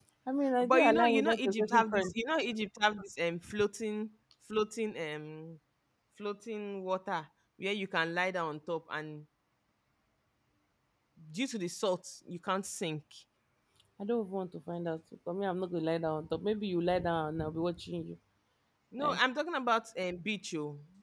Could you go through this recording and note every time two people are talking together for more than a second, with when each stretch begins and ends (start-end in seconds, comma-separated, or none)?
0.6-2.1